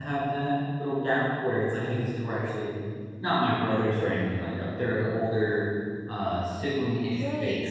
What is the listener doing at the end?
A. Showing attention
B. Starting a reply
B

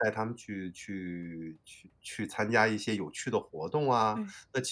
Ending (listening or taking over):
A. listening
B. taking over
A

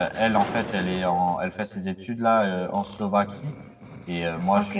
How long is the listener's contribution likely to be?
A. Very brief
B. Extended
A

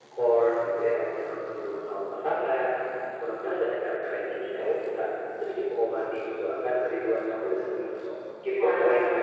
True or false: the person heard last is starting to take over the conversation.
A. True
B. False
A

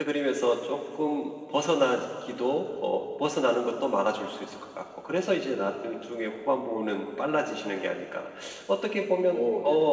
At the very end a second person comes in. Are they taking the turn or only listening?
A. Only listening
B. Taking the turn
A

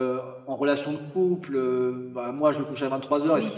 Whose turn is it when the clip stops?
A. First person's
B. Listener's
A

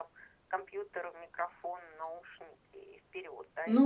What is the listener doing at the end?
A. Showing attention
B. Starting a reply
B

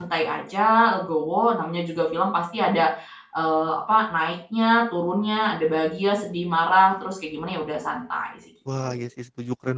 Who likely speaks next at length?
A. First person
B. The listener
B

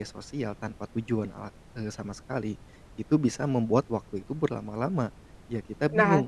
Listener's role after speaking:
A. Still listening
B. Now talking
B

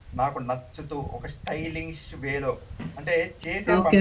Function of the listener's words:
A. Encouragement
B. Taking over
B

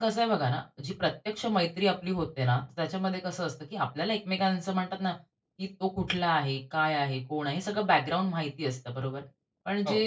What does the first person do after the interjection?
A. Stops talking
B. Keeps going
B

